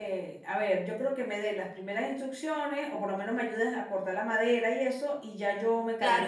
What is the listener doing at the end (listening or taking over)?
taking over